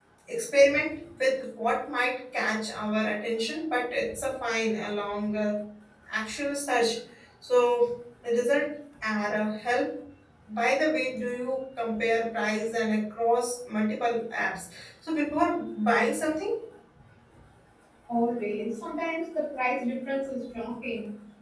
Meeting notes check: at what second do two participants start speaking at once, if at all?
none

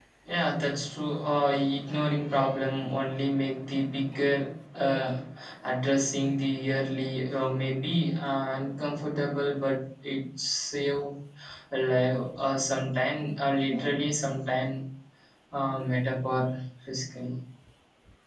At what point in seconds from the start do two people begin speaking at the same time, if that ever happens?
none

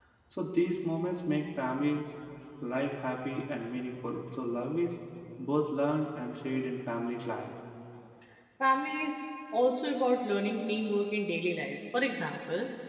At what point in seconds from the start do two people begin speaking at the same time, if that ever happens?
none

